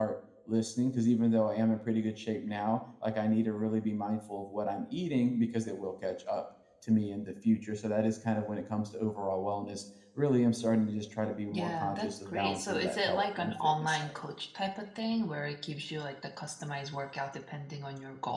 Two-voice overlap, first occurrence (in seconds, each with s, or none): 11.5 s